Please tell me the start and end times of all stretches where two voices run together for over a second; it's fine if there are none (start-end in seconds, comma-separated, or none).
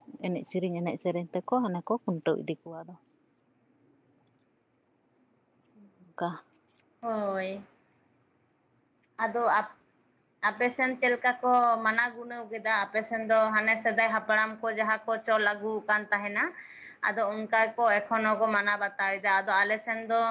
none